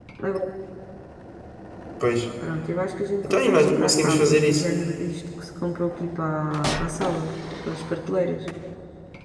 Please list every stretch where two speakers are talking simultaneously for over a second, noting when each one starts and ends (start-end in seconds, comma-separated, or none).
3.2-4.7